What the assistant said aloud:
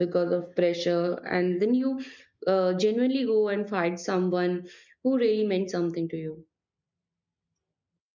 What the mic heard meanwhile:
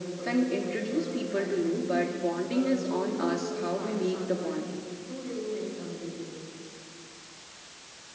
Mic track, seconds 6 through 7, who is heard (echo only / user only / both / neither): echo only